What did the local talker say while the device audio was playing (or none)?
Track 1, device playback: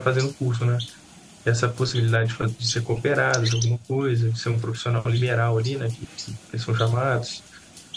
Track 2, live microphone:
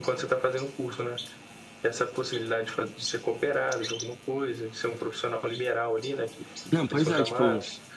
Não, pois é, tipo,